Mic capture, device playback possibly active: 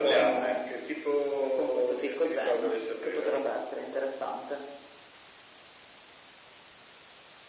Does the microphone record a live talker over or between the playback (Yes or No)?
No